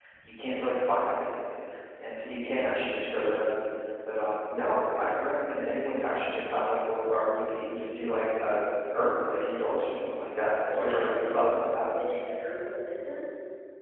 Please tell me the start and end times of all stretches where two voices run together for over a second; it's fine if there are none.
10.7-11.9

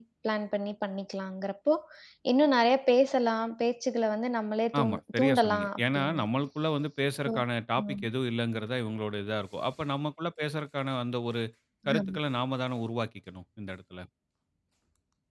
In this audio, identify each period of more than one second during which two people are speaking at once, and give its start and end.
4.8-6.2

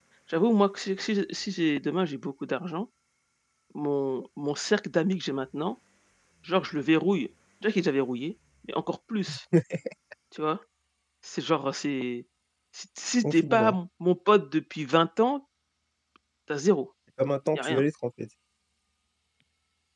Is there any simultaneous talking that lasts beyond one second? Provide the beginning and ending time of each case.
none

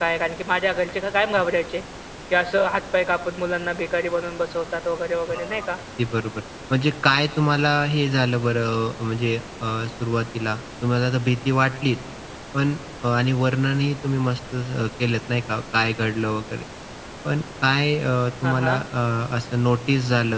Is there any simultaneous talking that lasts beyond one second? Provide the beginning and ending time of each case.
none

